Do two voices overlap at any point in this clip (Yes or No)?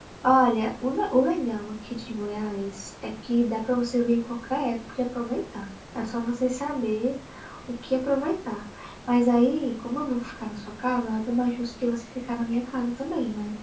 No